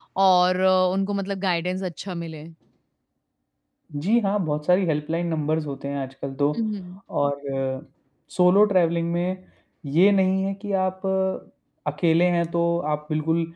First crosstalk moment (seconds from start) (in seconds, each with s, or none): none